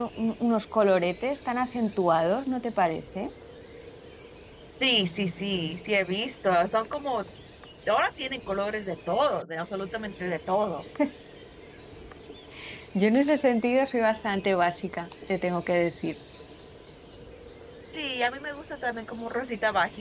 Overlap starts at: none

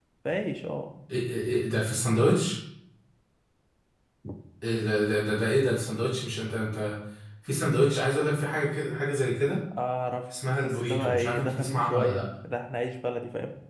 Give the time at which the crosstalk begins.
10.6 s

